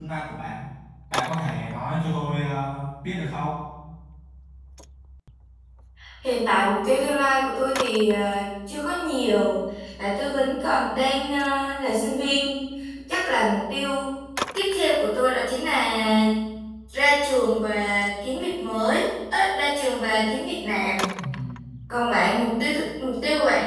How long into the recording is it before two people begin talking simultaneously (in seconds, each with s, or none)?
none